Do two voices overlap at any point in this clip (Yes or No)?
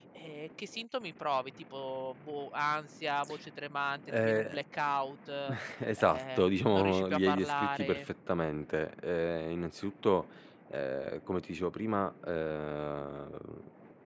Yes